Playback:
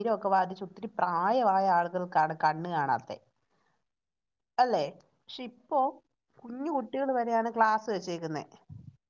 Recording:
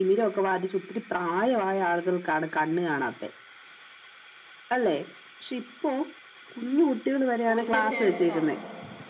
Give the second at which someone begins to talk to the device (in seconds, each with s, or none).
7.6 s